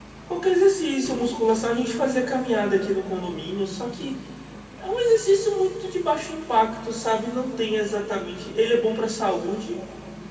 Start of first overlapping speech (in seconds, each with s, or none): none